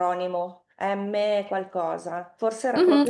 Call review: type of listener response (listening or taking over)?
taking over